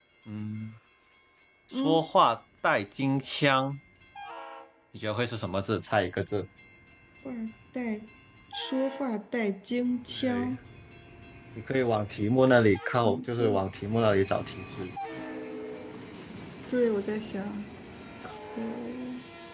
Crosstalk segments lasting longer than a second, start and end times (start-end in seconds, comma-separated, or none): none